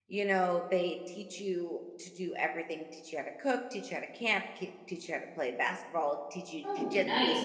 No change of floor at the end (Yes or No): Yes